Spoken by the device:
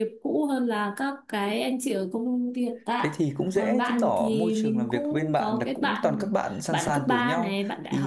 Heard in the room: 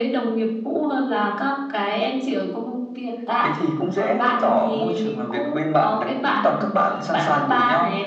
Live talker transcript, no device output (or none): none